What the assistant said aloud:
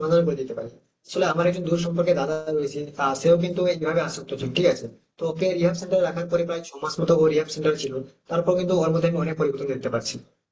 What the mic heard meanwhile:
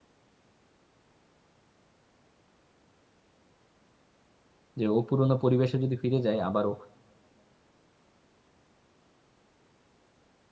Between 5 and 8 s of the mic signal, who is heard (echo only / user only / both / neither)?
user only